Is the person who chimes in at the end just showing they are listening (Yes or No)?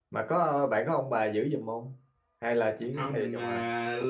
No